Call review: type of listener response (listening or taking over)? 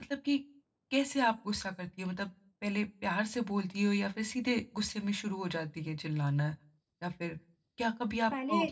listening